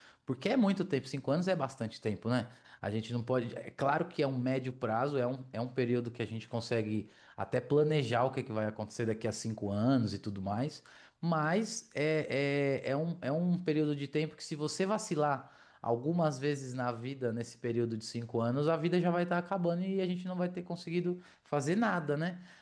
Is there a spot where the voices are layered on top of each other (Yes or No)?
No